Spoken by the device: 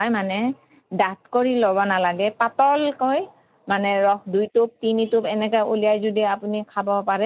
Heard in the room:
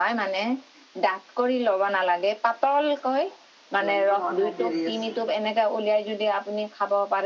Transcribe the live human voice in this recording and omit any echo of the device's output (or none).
লাগিব সন্ধা দেৰি আছে